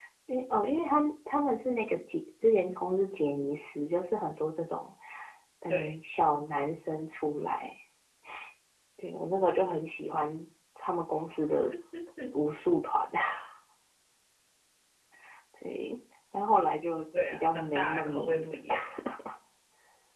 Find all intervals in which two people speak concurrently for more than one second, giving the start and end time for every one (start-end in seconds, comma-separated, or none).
17.3-19.0